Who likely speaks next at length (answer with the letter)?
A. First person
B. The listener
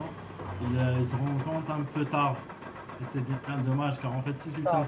A